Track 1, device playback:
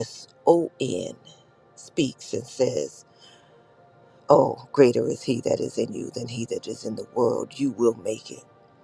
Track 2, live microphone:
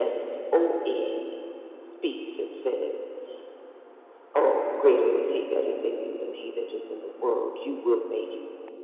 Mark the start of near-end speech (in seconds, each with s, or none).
none